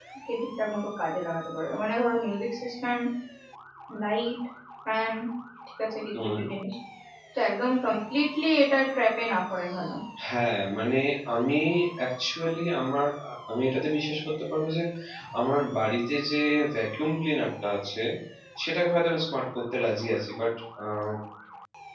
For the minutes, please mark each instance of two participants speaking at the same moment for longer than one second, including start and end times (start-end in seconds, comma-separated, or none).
none